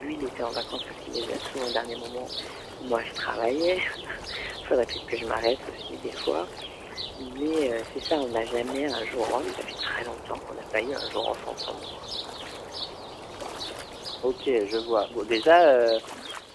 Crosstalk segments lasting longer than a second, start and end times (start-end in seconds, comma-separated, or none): none